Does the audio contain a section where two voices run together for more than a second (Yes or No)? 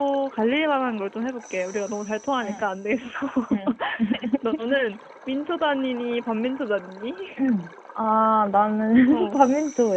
No